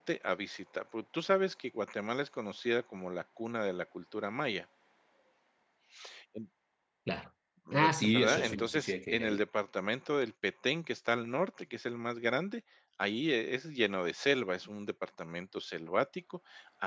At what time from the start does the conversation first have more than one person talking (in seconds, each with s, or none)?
7.8 s